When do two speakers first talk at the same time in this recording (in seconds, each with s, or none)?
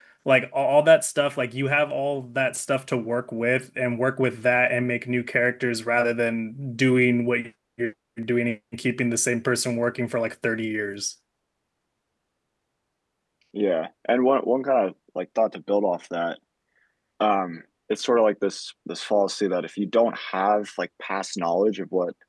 none